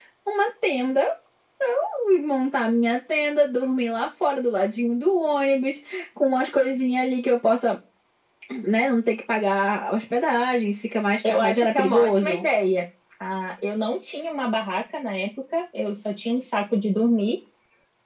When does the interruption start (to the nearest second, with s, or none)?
11 s